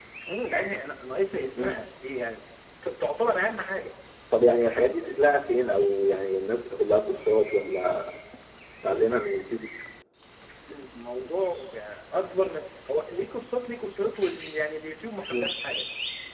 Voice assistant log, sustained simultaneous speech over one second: none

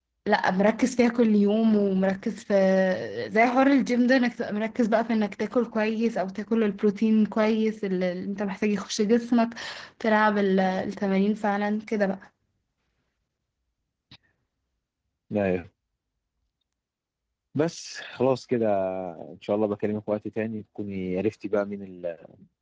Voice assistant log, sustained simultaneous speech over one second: none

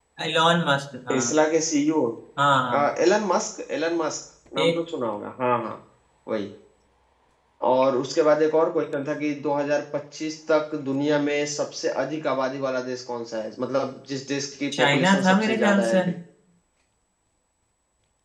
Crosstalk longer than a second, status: present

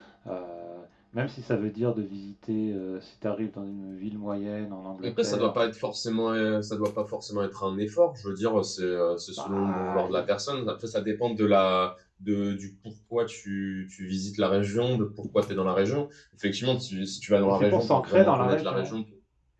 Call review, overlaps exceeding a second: present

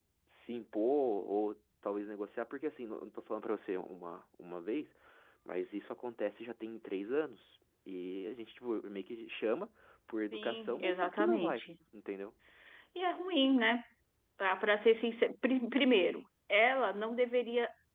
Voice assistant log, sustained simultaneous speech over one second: present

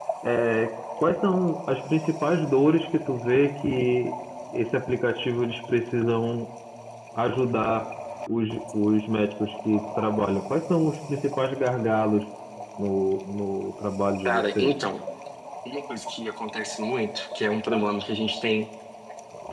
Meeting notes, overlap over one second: none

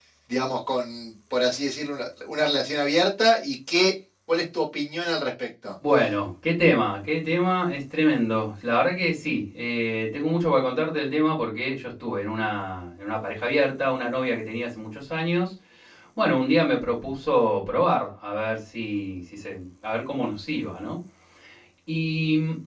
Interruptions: none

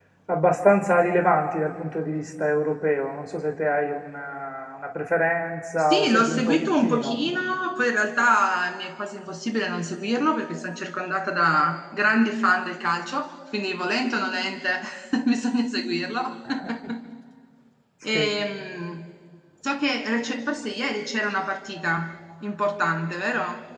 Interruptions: present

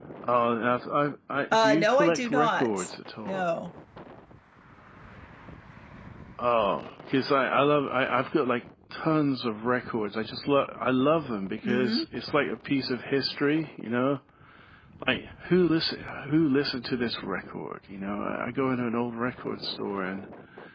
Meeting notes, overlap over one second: present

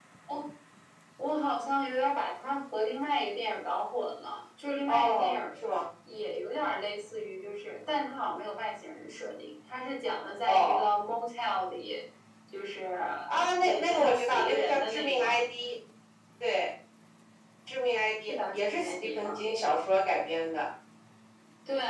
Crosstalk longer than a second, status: present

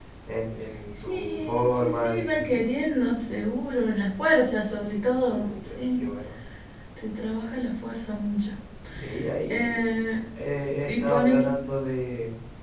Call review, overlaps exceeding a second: present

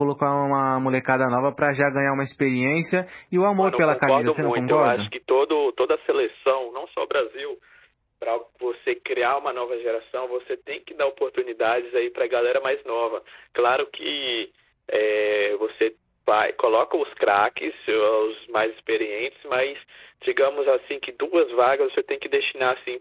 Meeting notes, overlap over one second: present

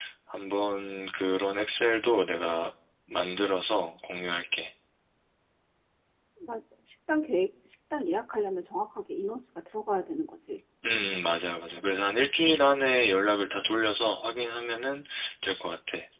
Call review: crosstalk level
none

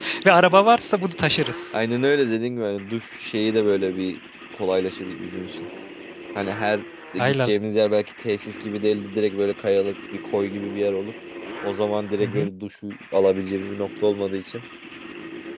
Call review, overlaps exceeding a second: none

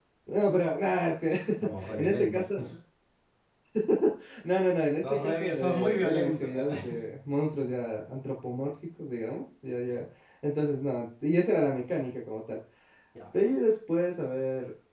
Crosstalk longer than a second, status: present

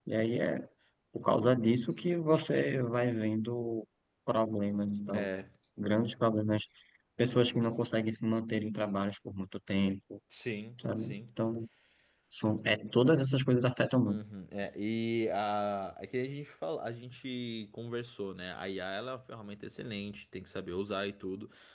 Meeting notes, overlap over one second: none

